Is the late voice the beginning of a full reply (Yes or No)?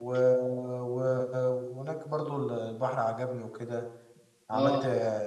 No